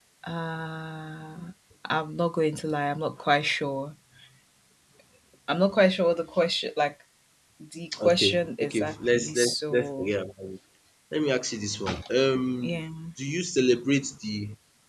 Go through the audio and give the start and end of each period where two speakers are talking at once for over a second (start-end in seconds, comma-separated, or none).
8.1-10.1